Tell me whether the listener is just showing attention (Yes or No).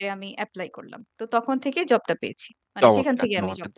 No